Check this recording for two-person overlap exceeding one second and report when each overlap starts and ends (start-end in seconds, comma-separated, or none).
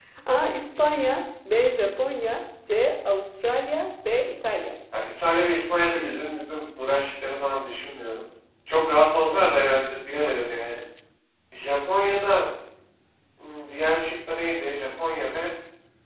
none